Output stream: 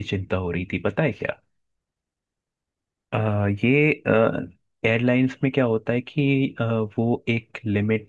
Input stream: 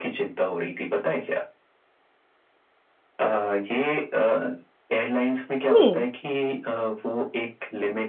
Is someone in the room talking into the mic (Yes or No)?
Yes